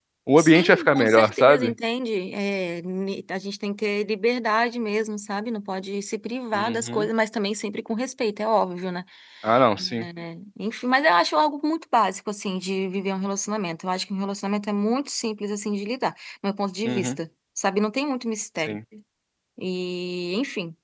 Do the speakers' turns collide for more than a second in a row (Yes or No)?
Yes